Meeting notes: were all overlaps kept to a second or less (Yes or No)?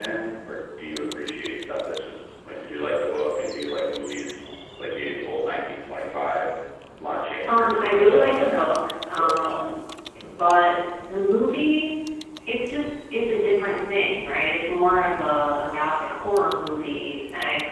No